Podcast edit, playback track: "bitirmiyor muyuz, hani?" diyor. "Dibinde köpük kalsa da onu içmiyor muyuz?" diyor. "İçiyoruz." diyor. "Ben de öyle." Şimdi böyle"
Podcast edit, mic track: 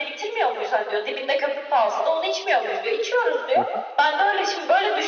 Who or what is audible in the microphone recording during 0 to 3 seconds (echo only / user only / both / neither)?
echo only